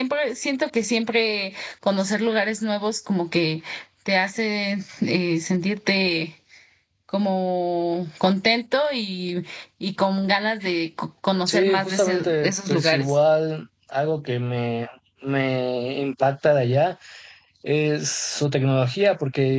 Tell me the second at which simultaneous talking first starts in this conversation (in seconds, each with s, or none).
11.5 s